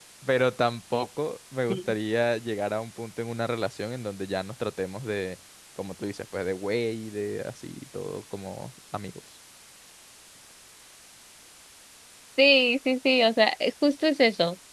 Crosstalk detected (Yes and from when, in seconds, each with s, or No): No